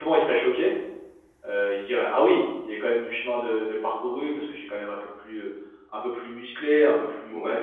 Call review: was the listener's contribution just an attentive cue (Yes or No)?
Yes